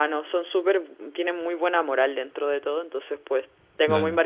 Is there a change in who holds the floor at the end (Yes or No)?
No